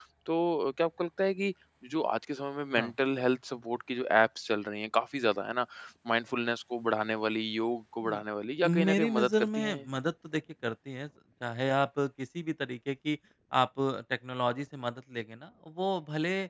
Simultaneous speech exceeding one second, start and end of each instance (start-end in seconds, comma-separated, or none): 8.6-9.8